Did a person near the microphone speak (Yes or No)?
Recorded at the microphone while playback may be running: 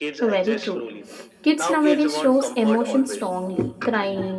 Yes